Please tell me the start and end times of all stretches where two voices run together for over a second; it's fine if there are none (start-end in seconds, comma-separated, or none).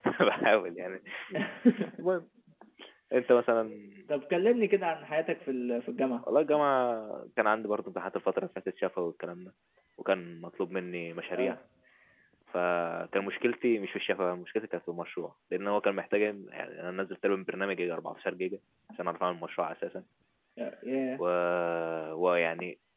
none